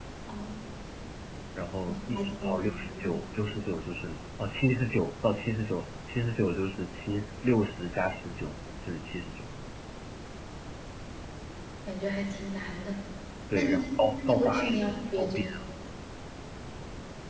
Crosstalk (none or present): present